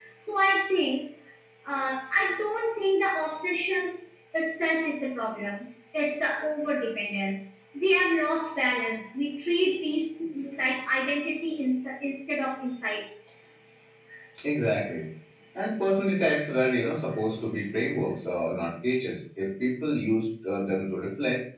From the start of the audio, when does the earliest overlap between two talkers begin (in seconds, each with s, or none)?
none